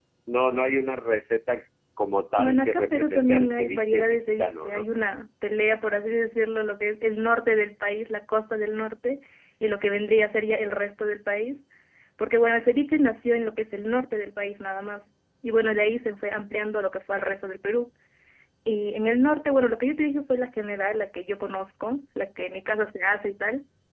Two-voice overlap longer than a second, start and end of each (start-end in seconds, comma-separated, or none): 2.4-4.8